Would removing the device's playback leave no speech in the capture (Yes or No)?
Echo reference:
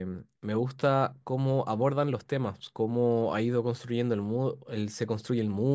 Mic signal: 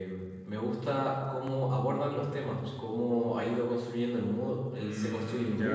No